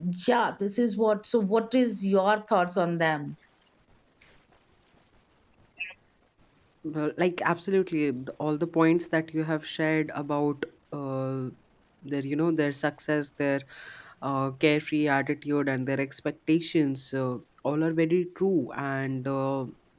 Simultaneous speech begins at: none

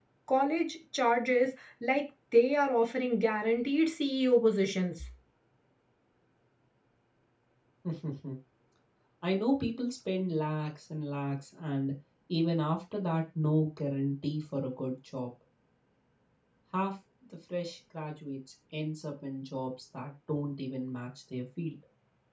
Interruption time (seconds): none

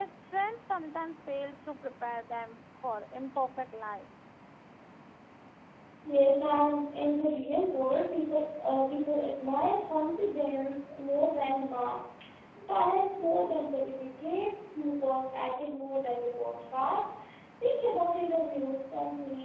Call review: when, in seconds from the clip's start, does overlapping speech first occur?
none

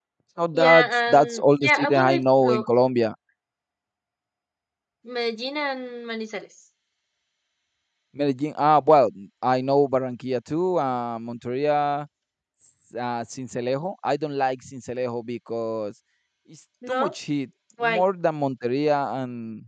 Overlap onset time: 0.5 s

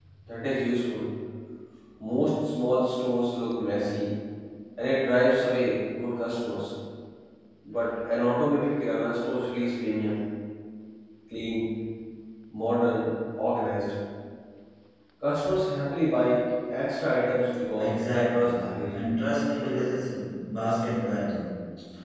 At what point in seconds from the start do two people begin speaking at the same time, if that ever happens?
17.8 s

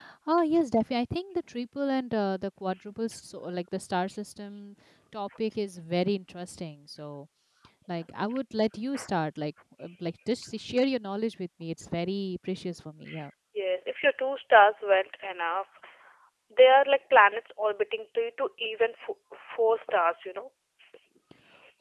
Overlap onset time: none

